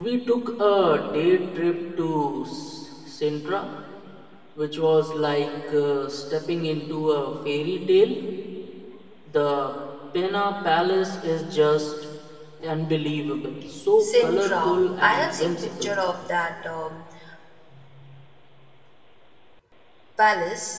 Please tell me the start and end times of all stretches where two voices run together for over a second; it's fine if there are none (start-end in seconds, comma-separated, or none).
14.0-15.9